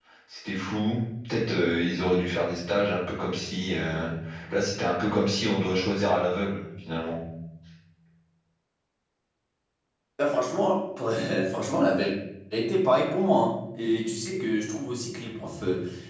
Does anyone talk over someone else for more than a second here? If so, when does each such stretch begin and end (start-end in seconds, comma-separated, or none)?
none